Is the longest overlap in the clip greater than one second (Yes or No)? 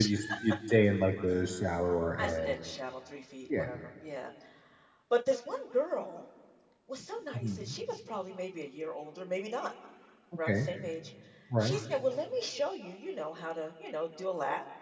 No